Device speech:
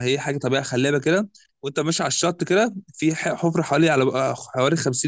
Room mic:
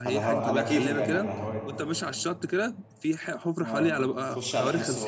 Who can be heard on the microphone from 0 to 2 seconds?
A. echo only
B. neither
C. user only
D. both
D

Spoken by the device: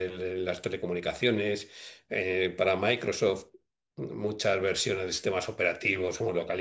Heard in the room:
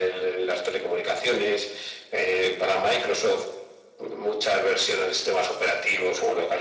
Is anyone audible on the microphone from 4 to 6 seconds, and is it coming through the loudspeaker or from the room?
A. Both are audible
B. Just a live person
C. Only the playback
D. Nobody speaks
C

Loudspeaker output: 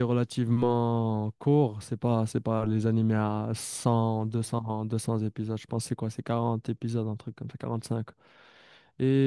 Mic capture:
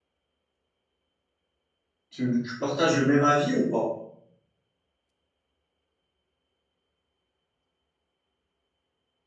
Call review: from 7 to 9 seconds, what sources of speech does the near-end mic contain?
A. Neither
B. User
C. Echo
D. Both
A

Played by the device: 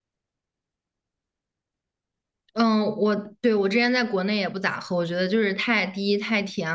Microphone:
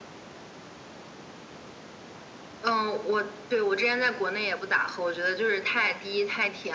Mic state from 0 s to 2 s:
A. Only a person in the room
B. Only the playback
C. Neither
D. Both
C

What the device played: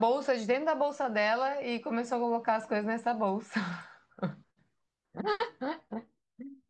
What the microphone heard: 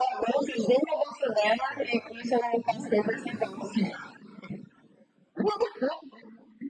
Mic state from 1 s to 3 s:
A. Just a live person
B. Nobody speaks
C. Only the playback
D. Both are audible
D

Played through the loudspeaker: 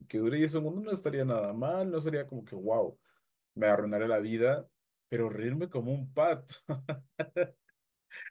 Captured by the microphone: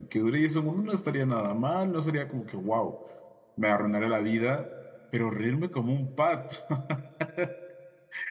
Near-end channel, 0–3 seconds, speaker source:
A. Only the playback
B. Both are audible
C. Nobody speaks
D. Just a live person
A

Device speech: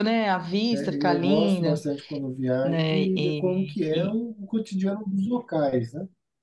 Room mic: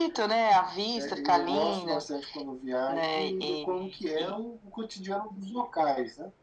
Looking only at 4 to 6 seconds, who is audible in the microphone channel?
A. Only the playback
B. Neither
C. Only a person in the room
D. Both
A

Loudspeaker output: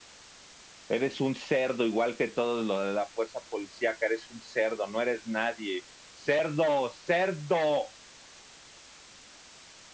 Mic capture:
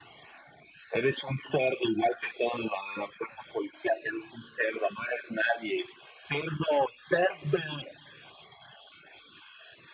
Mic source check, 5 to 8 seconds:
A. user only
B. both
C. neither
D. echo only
D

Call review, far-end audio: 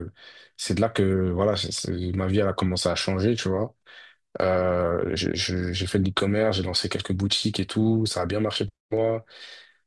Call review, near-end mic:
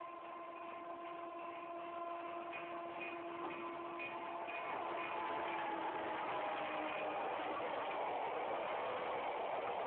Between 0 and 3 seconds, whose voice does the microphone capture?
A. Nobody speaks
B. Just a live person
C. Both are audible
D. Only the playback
A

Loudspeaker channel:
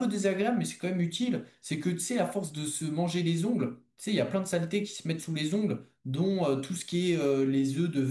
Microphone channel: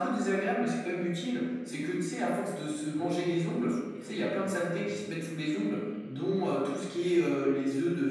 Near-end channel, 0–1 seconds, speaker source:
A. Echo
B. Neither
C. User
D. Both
A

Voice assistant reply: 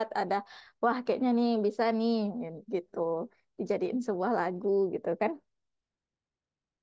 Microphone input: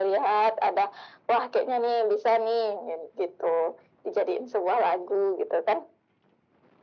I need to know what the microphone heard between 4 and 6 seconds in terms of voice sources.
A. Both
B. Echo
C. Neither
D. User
B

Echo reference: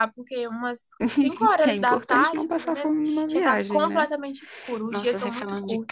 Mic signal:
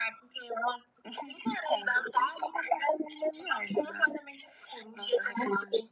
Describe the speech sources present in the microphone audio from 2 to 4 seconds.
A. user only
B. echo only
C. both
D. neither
B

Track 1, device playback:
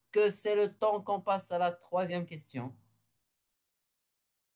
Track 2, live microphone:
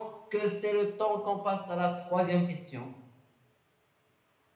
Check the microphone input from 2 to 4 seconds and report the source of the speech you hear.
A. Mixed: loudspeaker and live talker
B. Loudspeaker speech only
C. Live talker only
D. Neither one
B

